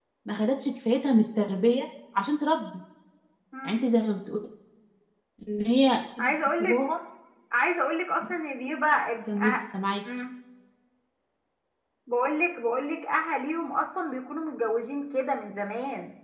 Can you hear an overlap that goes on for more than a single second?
No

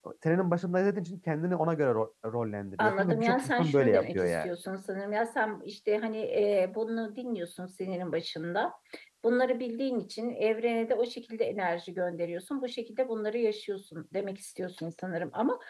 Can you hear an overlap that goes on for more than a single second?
Yes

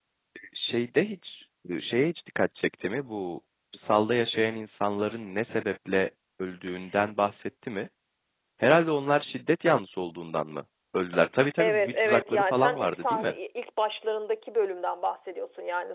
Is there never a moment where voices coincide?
No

